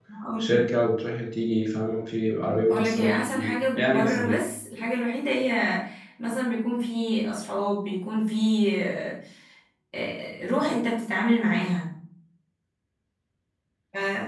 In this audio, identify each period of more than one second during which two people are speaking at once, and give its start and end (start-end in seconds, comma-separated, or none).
2.7-4.4